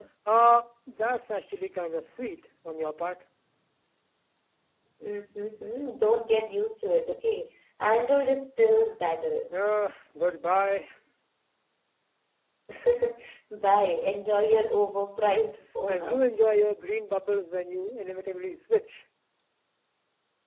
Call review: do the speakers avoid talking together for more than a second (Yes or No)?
Yes